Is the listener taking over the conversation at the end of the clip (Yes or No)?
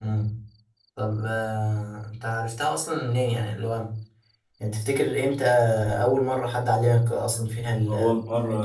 Yes